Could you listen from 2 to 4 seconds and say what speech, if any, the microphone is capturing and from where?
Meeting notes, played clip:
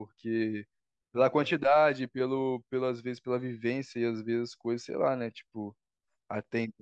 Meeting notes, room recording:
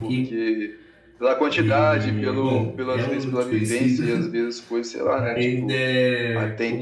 both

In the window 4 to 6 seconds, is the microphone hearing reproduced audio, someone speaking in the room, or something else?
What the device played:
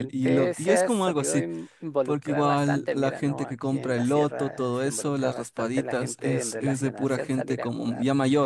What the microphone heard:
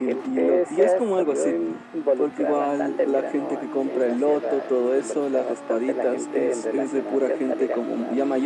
echo only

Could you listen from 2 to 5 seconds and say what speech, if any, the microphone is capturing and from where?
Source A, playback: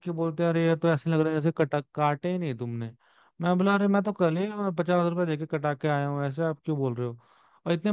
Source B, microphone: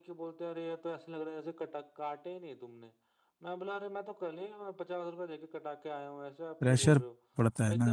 echo only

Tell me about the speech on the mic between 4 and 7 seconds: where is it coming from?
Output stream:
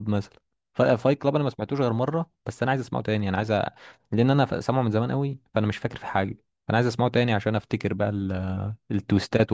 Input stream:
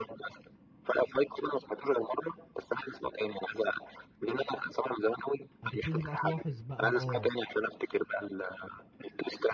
both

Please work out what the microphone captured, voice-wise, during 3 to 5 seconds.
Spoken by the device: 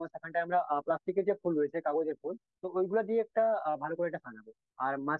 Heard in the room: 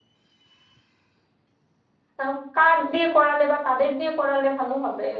user only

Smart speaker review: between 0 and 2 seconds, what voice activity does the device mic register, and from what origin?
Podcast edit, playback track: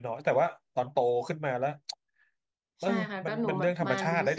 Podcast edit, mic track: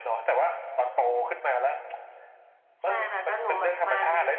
echo only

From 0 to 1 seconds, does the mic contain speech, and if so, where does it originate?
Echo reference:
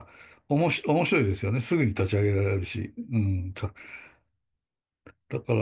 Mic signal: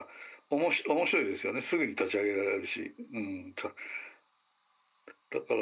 echo only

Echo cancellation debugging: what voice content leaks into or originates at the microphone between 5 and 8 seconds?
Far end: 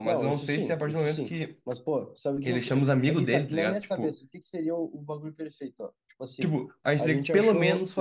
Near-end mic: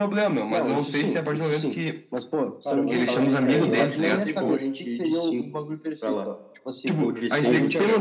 both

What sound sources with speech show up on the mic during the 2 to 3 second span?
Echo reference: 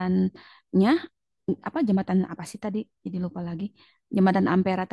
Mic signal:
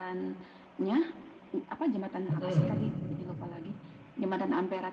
both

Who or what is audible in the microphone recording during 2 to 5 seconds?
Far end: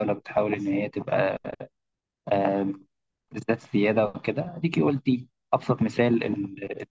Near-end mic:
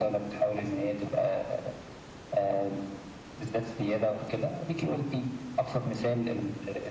echo only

